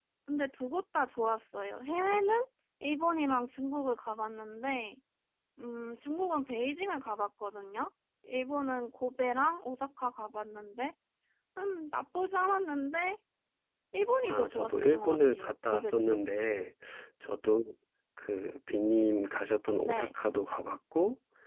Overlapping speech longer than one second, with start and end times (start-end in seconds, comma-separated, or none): 14.3-16.2